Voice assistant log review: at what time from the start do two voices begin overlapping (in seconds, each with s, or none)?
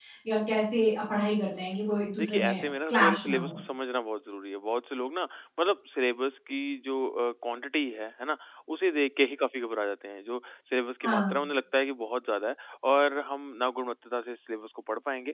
2.2 s